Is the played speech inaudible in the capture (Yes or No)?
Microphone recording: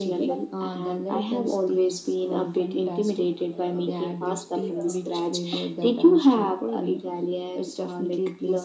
No